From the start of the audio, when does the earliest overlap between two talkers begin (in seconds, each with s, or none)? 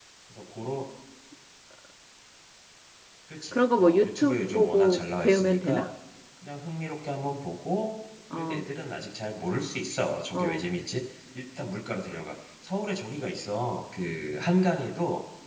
3.5 s